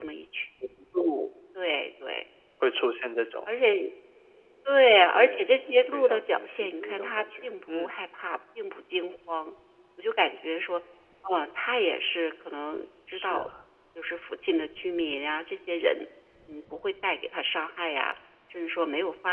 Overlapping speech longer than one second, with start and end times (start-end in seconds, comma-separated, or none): 5.9-7.9